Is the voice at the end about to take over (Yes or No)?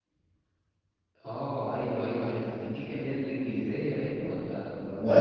Yes